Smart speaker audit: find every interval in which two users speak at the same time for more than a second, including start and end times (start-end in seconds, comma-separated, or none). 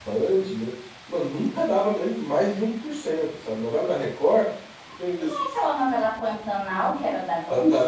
none